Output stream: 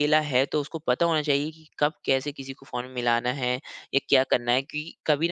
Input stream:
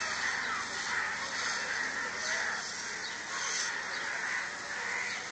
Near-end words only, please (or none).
none